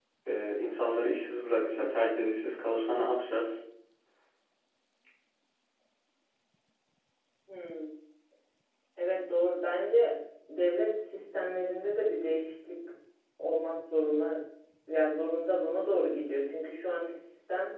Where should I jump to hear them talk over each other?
none

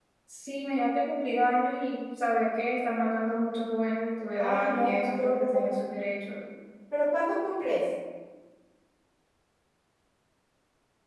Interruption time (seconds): 4.4 s

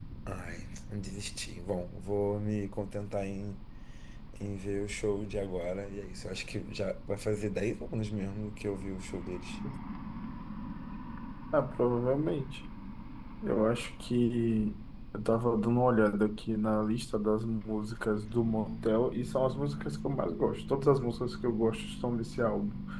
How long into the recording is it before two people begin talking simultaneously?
none

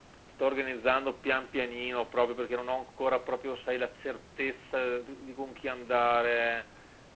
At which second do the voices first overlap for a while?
none

